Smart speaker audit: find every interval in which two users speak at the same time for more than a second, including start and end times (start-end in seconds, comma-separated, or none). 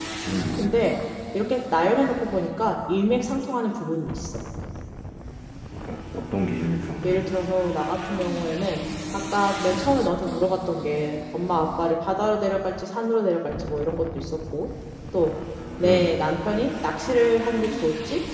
none